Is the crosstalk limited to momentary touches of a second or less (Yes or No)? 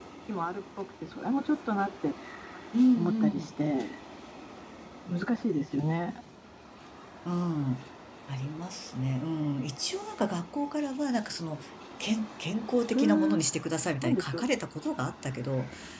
Yes